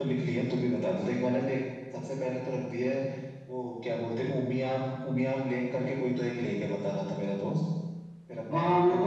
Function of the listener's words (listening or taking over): taking over